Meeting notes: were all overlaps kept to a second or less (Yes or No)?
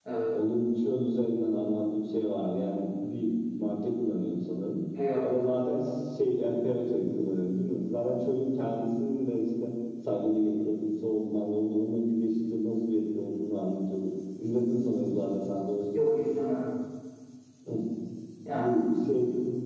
Yes